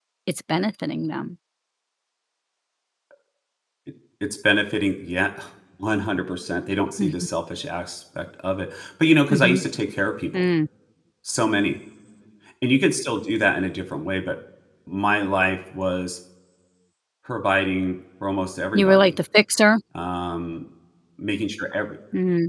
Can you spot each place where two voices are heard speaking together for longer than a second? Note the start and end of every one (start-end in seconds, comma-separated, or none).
none